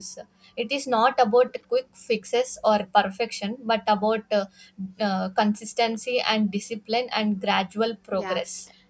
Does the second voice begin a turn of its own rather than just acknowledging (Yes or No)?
Yes